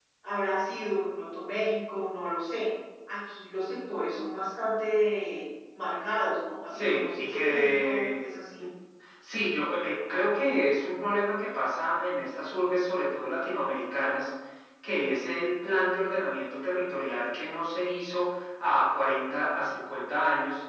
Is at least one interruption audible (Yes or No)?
Yes